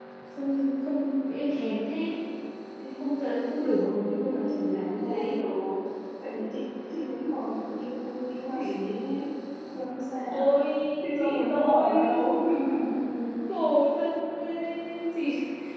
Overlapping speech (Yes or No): Yes